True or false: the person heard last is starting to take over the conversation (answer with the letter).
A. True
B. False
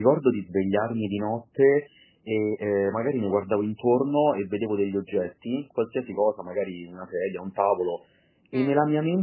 B